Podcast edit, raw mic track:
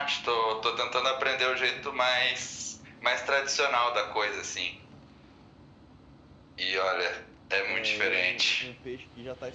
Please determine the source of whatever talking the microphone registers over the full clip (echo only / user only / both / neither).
both